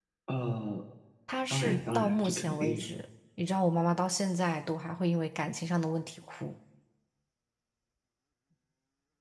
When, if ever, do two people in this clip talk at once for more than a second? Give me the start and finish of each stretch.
1.5-2.9

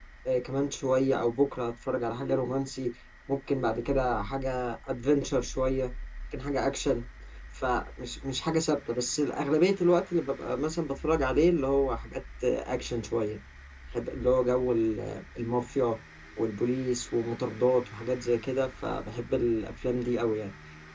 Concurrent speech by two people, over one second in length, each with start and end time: none

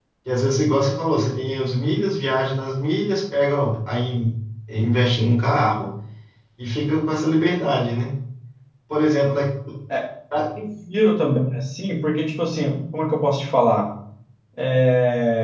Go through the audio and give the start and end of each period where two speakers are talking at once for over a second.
none

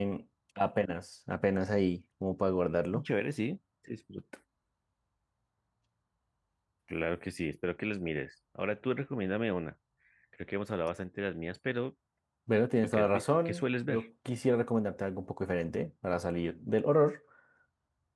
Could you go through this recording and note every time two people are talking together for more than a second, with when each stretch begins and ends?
12.8-14.1

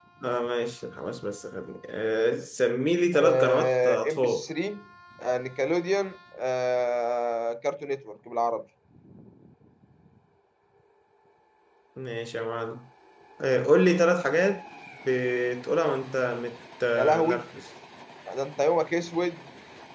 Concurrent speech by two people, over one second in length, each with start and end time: 3.1-4.5

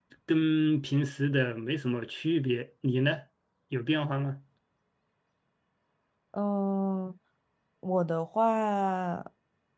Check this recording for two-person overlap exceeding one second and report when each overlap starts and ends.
none

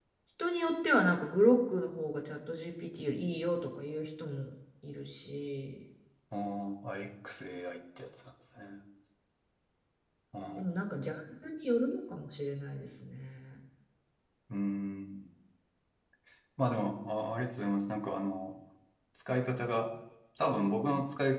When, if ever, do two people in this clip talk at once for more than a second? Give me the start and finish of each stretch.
none

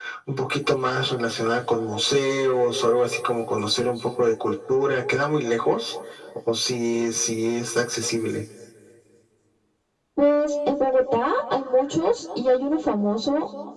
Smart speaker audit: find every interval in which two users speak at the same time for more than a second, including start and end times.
none

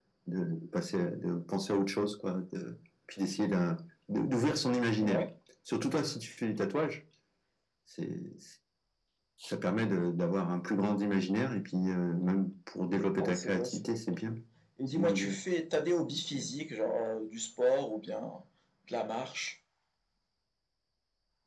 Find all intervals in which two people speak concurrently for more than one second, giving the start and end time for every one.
13.1-14.3

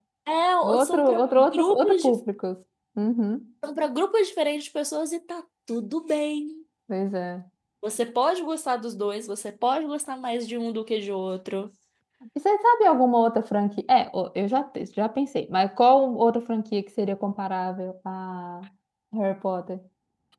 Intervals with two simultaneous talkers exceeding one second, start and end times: 0.6-2.1

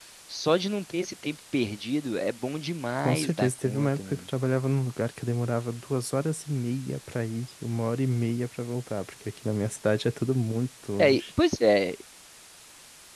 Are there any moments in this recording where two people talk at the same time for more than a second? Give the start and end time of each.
3.0-4.2

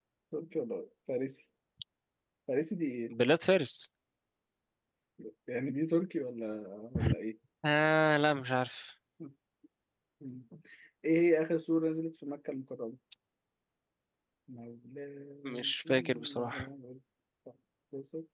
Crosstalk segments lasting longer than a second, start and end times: 15.4-16.6

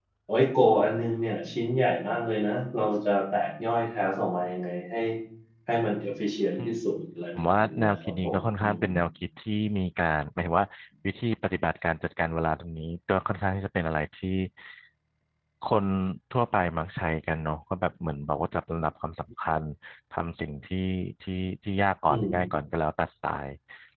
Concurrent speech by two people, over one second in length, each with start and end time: 7.4-8.8

